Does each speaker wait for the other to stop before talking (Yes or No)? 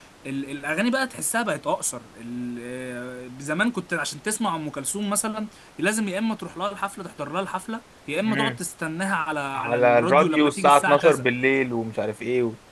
No